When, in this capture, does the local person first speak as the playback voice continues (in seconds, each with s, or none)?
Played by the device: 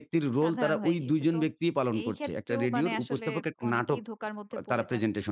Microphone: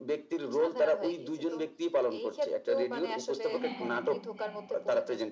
3.4 s